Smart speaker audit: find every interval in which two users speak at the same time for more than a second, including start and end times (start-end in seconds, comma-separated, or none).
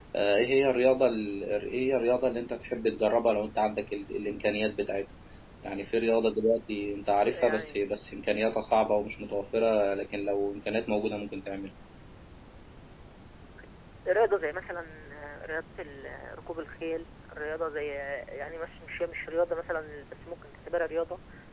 none